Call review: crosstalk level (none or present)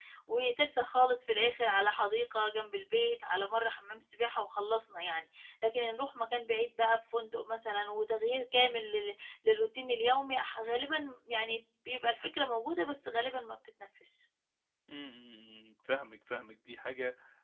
none